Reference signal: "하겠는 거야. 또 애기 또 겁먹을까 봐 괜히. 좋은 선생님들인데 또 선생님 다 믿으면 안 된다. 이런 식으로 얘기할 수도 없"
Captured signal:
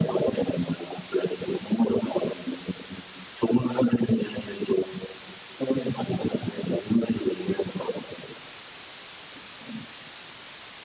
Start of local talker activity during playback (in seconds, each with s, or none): none